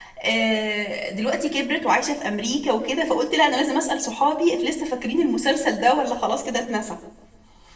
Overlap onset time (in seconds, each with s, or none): none